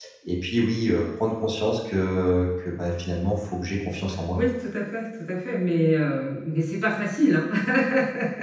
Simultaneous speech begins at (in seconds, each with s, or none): none